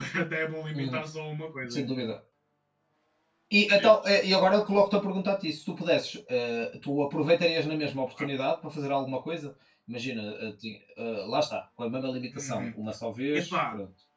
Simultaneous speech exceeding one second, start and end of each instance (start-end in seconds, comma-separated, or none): none